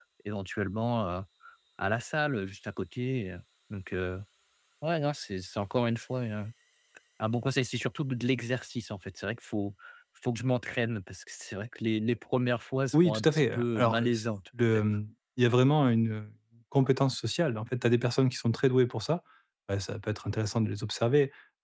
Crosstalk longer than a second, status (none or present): present